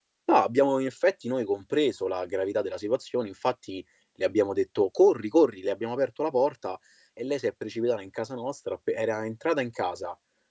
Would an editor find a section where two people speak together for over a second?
No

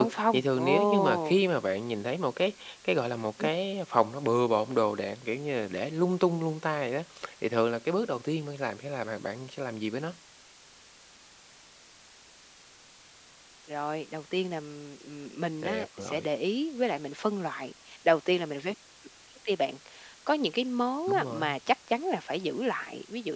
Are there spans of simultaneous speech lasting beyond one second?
Yes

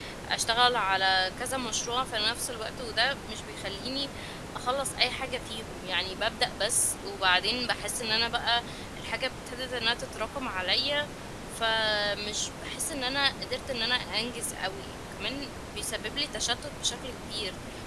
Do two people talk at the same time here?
No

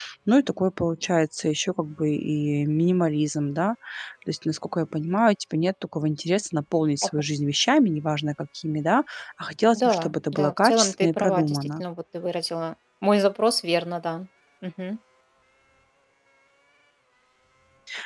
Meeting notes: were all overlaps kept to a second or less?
No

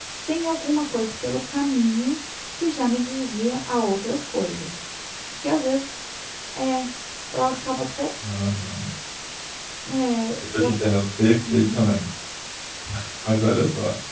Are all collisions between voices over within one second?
Yes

